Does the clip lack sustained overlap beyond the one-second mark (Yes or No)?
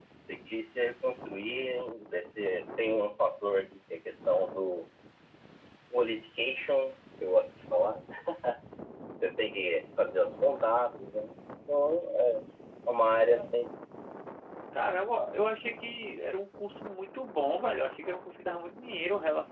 Yes